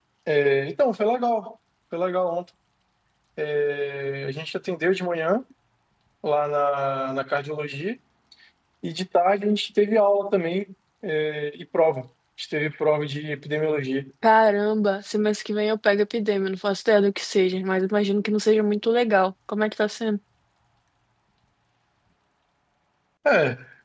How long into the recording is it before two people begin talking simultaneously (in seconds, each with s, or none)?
none